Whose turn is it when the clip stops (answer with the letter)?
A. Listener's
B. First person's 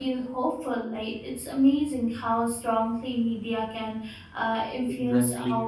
B